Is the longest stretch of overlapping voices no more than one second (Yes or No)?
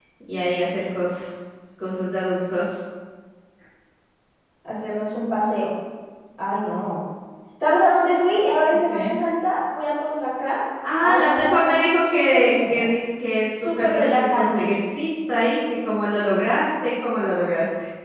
No